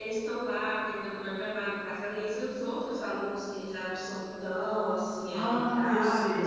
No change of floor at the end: No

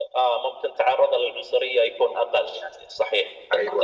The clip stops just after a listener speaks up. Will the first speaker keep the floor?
No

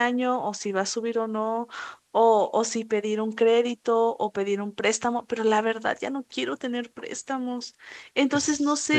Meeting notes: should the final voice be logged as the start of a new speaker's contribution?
Yes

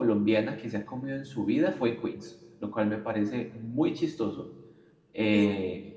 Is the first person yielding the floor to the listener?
No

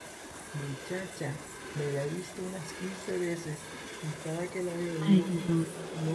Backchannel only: Yes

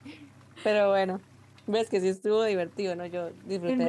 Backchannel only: No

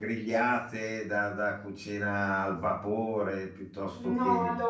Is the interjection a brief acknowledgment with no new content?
No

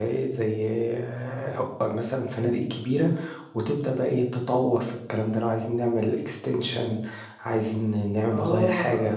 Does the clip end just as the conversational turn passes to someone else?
Yes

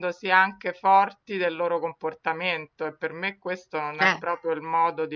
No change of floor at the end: Yes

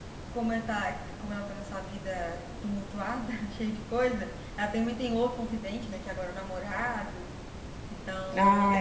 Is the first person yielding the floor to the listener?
No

